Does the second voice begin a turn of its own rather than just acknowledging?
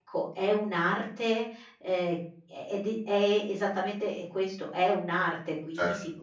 Yes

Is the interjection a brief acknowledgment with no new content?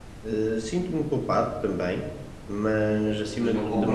No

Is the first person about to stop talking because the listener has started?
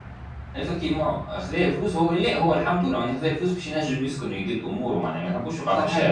Yes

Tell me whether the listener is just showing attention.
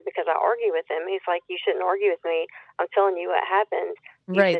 No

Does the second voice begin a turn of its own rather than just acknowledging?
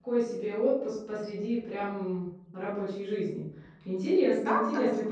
Yes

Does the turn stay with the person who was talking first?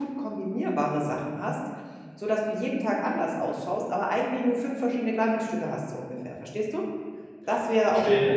No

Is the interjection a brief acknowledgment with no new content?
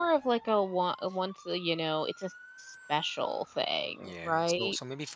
No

